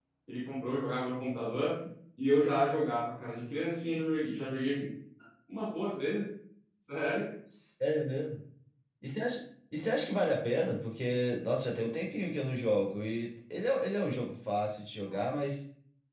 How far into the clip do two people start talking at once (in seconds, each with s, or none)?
none